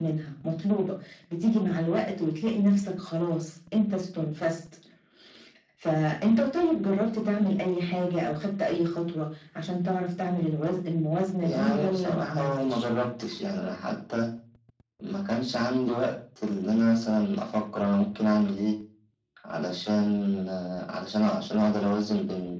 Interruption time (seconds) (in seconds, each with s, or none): 11.4 s